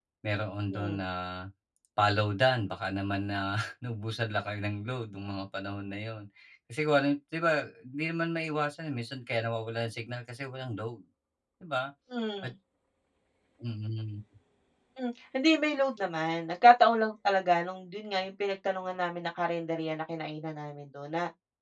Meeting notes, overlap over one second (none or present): none